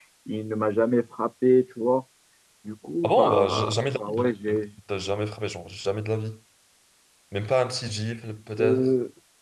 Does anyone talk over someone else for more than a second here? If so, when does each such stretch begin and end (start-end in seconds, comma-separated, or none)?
3.0-4.7